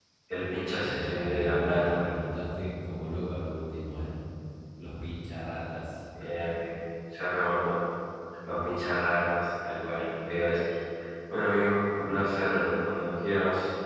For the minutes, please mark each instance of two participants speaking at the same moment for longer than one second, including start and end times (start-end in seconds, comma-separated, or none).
0.7-2.0